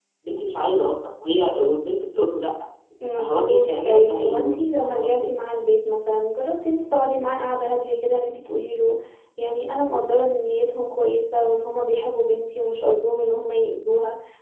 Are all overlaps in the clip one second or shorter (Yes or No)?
No